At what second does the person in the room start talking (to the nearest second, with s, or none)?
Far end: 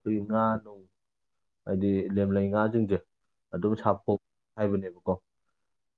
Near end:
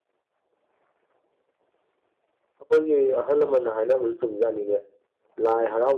3 s